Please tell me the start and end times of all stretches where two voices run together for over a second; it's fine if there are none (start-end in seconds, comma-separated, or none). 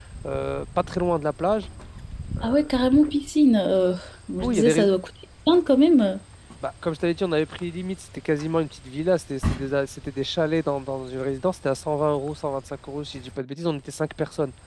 none